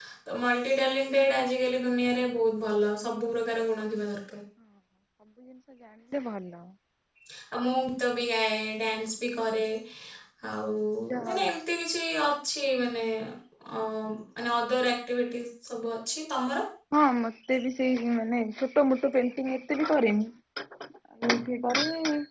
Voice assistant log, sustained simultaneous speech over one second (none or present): none